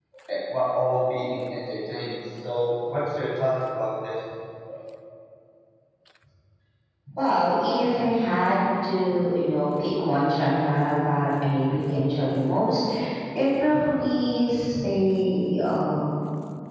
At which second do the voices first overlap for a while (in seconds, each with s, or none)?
none